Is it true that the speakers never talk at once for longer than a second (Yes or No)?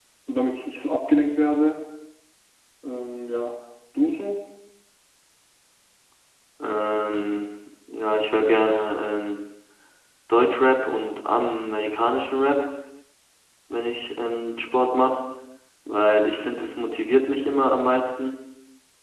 Yes